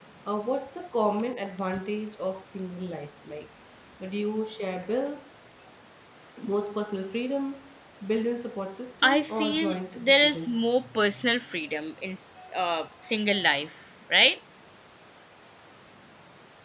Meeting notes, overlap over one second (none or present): present